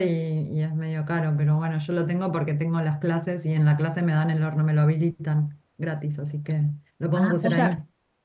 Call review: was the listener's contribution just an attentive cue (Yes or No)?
No